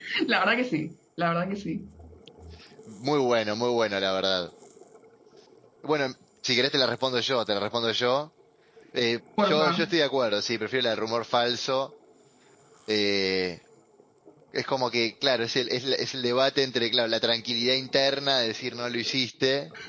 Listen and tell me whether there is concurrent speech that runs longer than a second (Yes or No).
No